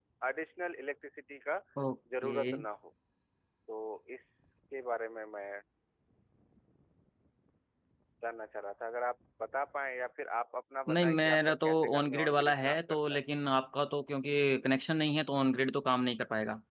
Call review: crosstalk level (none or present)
present